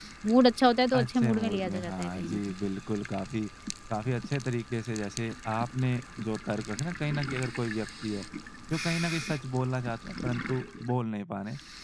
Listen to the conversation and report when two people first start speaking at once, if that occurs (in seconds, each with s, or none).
0.9 s